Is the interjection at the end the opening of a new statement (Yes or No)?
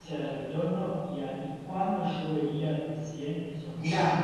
Yes